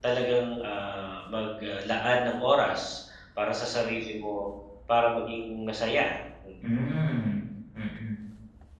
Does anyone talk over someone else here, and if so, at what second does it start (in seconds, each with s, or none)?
none